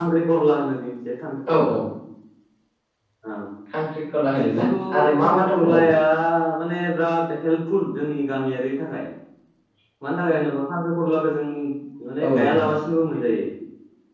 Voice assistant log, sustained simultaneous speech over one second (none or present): present